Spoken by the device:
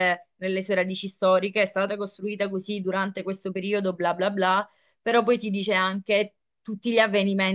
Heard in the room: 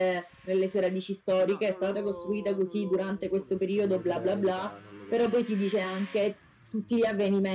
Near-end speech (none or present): present